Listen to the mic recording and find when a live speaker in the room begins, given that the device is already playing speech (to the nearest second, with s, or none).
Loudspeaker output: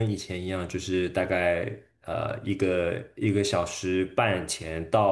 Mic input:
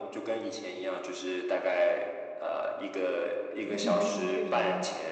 4 s